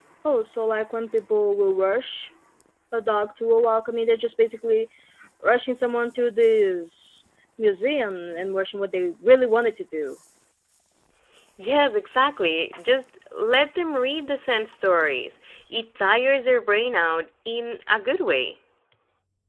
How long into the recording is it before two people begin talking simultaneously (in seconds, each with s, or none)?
none